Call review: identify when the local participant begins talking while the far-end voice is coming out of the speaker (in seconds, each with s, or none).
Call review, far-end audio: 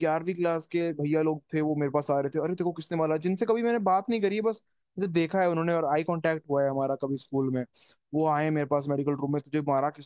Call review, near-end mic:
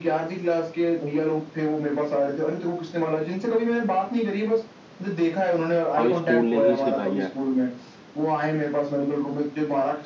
6.0 s